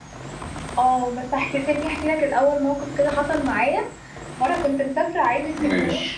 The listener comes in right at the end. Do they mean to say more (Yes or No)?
No